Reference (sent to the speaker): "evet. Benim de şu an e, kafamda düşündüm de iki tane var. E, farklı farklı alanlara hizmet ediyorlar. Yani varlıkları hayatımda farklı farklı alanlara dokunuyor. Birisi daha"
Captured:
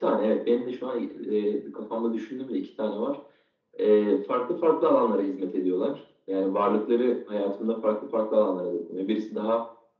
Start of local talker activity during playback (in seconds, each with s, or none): none